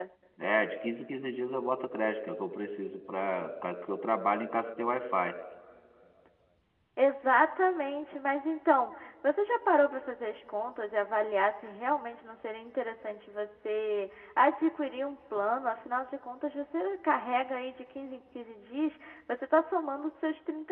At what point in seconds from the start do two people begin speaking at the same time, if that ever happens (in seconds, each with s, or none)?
none